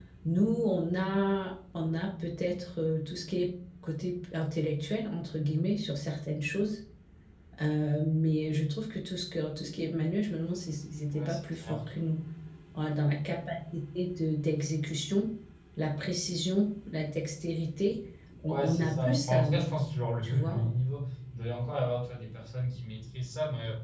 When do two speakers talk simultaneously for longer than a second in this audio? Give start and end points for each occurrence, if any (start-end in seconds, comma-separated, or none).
18.5-19.8